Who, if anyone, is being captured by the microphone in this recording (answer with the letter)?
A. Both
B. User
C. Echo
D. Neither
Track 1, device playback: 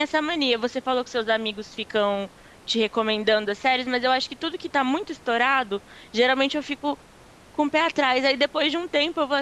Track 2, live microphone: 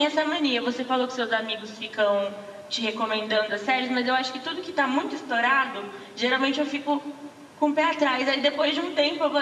C